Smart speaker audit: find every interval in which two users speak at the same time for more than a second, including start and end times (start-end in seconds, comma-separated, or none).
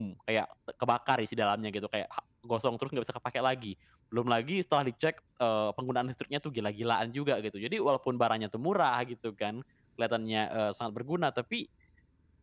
none